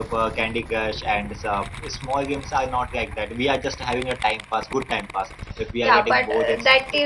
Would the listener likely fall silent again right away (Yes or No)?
No